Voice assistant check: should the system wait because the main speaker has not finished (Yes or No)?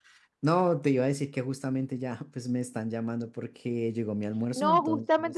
No